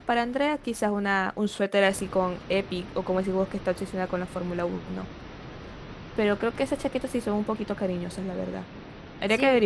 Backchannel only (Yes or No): No